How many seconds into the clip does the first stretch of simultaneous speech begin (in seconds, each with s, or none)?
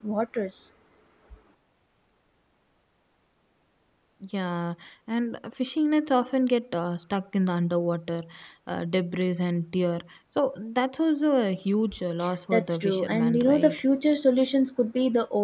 12.5 s